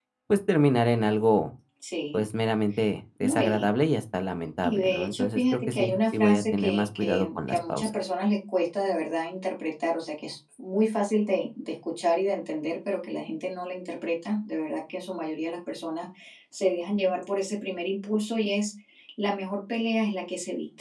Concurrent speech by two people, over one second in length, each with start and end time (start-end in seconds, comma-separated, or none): 4.6-7.9